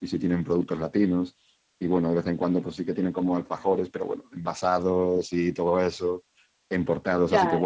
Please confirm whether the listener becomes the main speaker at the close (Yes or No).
No